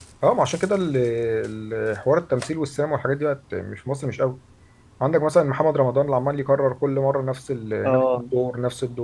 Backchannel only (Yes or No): Yes